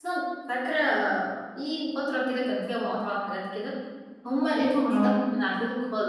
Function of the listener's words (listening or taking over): listening